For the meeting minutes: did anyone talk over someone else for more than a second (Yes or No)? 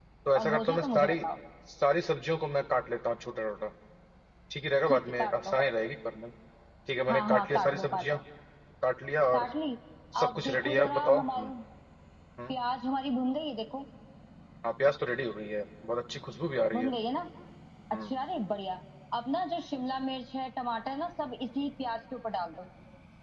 Yes